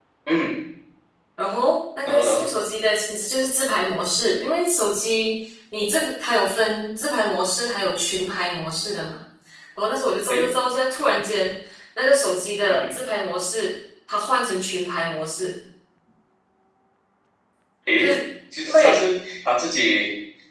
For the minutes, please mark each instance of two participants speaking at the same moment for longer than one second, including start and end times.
none

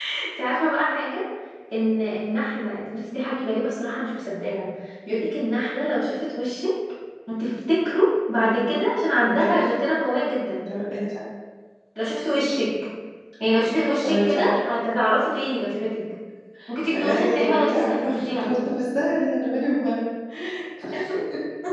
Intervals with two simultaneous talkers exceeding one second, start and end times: 16.9-18.7

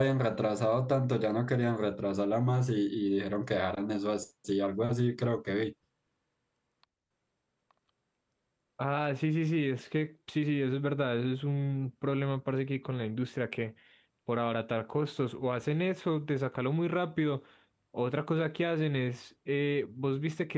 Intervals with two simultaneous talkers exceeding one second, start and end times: none

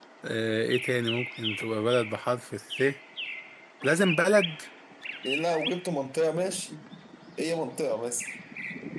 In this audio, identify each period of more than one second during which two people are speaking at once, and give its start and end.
none

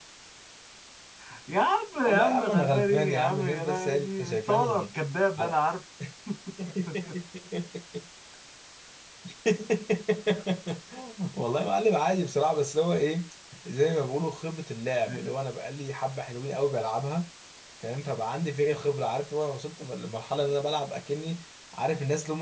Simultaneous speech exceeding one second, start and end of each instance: 2.0-4.8

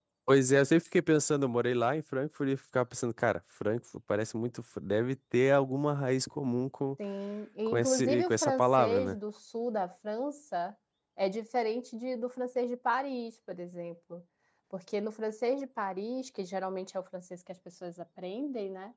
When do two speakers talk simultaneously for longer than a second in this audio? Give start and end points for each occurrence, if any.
7.7-9.2

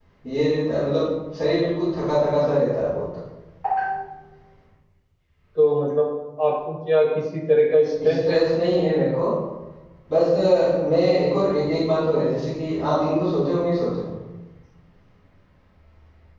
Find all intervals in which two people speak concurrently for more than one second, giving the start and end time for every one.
none

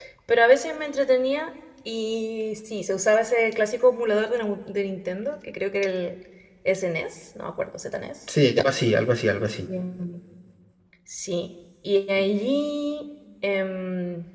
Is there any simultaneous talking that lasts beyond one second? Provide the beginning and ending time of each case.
none

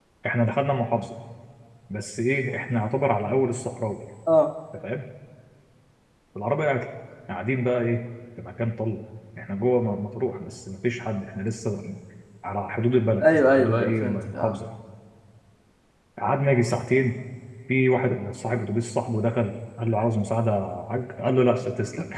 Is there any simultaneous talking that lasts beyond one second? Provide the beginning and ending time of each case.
13.2-14.6

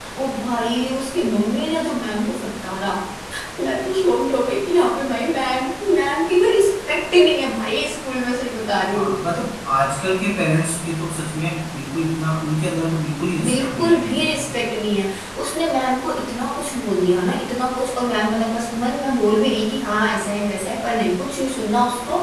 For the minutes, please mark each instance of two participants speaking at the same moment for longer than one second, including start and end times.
13.4-14.7

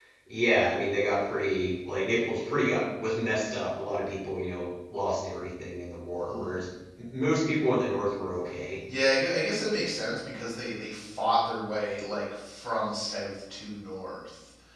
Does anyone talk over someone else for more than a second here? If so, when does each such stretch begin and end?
none

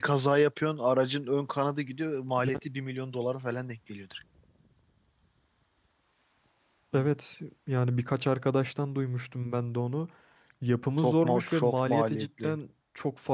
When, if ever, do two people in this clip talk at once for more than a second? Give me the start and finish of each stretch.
11.0-12.6

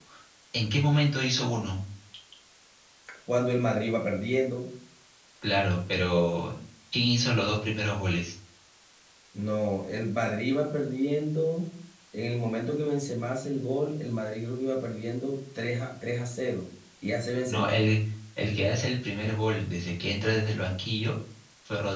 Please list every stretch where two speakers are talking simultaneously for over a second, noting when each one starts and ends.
none

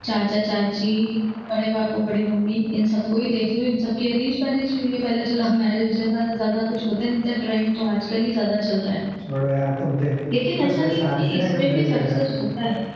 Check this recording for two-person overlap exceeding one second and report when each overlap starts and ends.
10.6-12.2

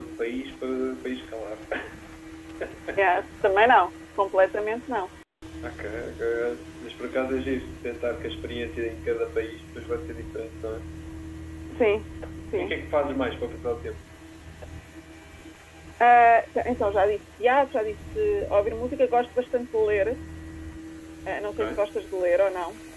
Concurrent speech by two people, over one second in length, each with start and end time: none

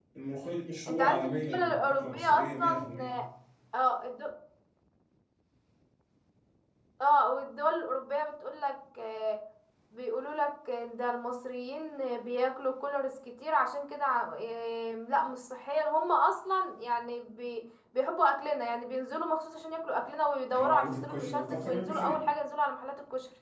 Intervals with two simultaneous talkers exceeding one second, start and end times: 0.9-3.2, 20.6-22.2

